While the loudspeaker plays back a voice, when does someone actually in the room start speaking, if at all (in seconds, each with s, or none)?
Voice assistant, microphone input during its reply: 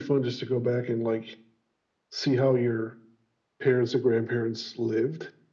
none